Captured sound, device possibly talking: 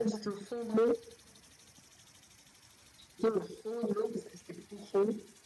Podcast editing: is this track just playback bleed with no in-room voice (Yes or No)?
Yes